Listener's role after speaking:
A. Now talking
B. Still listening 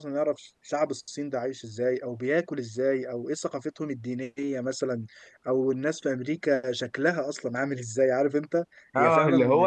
A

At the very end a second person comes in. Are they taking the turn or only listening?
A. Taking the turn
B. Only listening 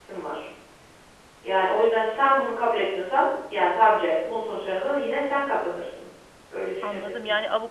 A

